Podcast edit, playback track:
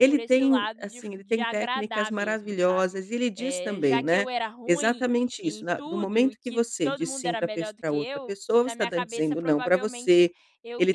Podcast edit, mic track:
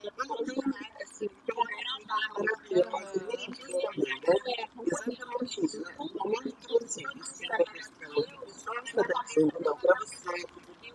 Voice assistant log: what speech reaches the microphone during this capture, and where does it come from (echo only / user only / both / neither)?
both